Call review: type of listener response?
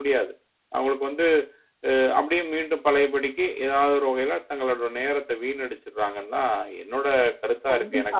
taking over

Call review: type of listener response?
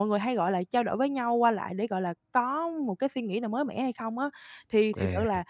listening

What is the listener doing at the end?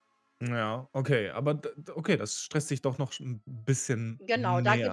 taking over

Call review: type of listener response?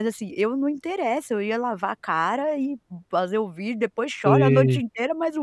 listening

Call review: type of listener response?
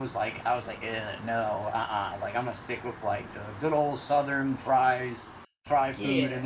listening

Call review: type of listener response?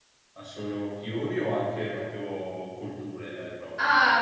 taking over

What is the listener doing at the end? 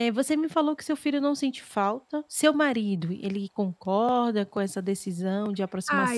taking over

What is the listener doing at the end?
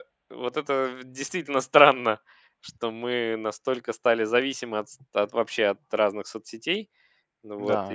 taking over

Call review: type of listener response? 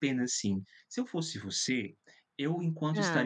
listening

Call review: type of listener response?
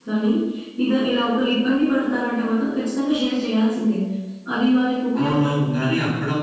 taking over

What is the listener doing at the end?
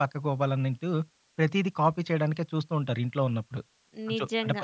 taking over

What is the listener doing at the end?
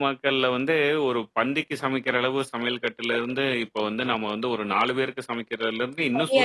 taking over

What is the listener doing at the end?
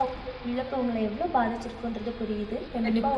listening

